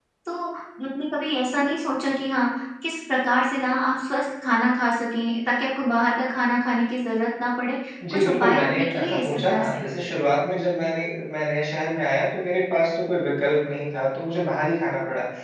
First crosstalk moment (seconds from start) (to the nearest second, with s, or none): 8 s